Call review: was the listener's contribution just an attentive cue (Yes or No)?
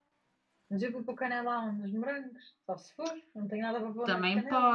No